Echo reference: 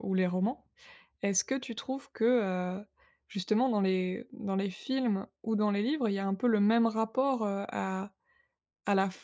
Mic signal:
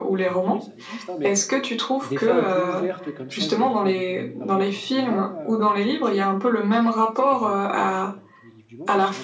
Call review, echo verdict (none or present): present